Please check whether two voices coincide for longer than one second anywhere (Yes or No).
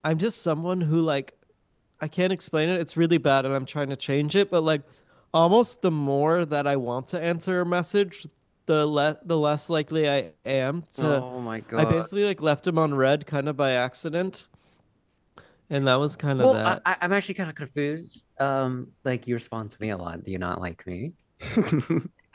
No